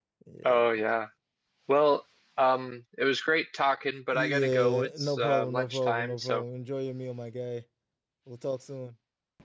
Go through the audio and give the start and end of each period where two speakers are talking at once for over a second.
4.1-6.4

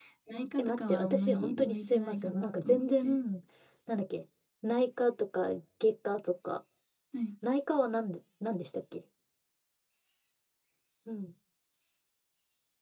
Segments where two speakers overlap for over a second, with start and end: 0.6-3.0

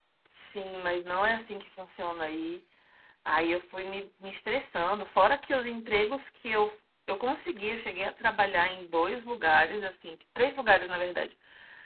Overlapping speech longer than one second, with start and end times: none

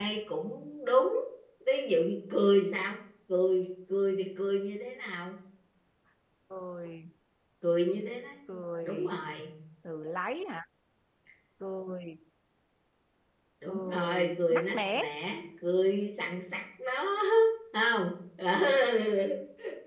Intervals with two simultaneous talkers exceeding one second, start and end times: 13.7-15.1

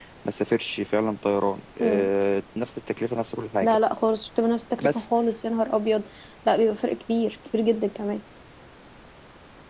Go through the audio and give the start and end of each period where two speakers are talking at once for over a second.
none

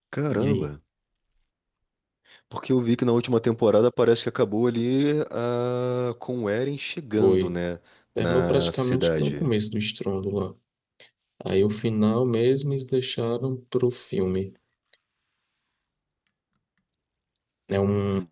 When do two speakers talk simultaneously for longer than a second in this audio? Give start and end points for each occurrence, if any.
8.2-9.4

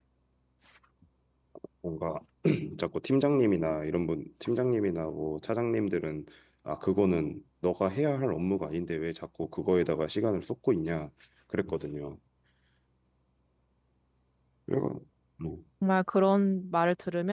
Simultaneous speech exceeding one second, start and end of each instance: none

